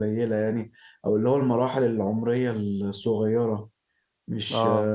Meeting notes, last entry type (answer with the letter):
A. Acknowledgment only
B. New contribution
B